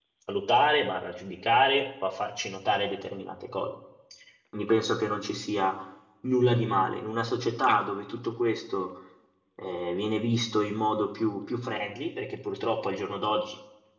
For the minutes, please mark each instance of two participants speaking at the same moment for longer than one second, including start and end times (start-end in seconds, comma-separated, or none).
none